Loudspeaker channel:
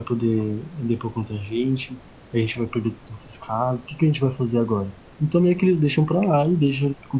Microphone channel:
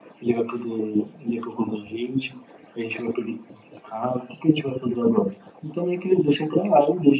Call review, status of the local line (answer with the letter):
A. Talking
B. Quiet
B